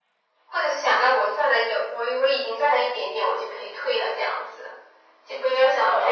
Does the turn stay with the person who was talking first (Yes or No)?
No